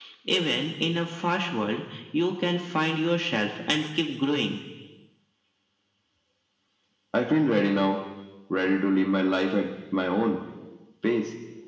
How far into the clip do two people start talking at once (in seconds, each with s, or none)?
none